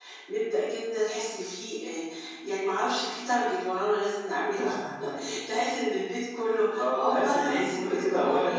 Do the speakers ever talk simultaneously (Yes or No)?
Yes